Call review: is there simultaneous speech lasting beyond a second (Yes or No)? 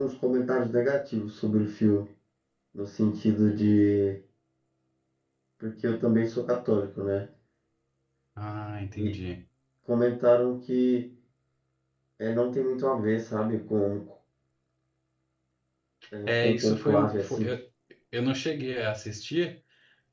Yes